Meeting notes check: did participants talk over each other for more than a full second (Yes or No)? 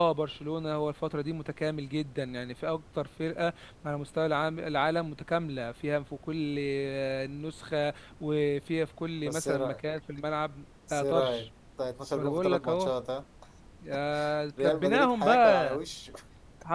Yes